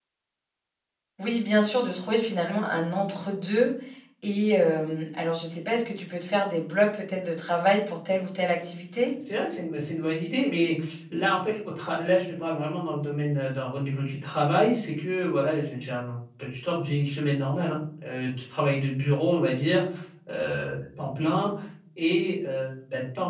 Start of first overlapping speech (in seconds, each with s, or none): none